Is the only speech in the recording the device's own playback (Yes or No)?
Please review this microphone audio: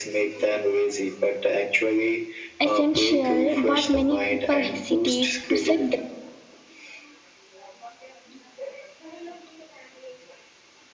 No